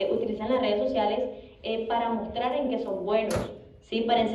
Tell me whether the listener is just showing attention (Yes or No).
Yes